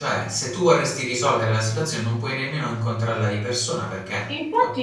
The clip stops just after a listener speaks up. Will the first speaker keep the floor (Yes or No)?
No